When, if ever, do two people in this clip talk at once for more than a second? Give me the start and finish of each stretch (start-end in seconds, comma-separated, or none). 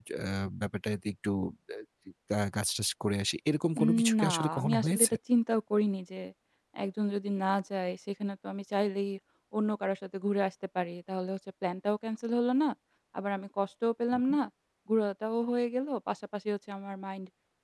3.8-5.1